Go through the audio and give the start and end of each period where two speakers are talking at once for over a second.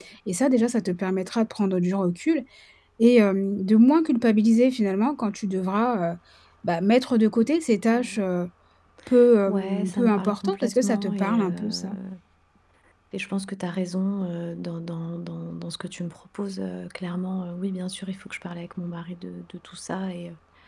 9.5-11.9

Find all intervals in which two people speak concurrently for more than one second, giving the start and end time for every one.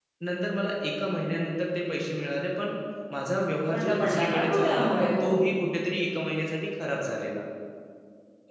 3.7-5.2

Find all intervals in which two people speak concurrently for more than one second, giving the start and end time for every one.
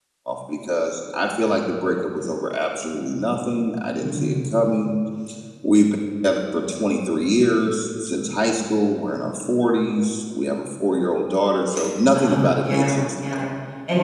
12.1-13.4

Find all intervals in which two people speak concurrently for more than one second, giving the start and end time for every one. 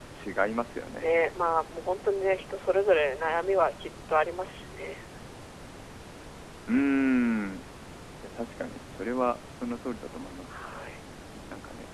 none

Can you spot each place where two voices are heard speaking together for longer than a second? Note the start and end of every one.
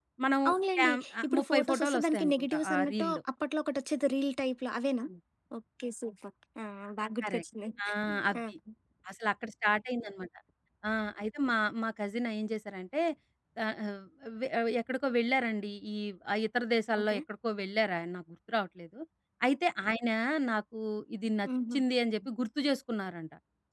0.8-3.2

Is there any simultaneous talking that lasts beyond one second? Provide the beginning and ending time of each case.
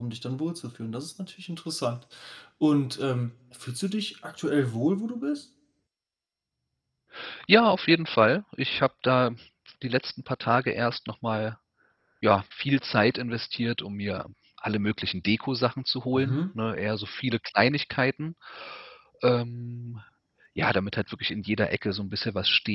none

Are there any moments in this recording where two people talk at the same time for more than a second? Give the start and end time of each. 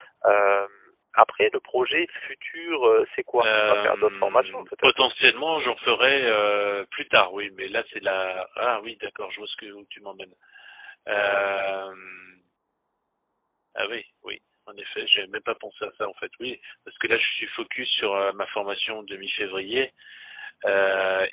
3.4-5.0

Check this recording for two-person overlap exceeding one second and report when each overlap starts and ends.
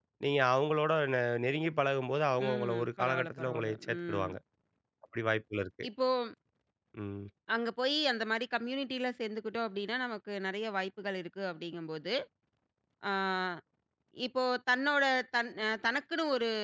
2.5-4.3

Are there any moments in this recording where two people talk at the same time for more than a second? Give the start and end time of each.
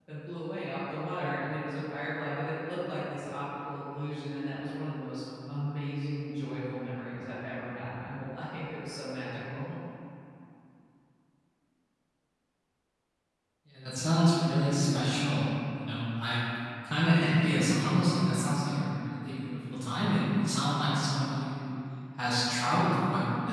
none

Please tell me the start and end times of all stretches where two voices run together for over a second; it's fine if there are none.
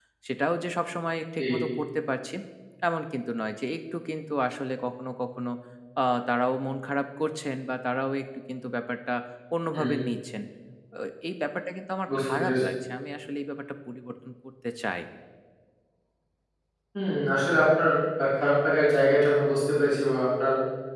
none

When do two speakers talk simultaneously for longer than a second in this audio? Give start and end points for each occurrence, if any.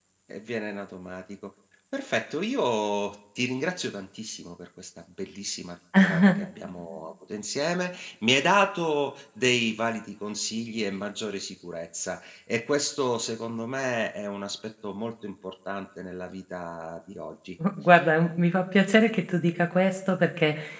none

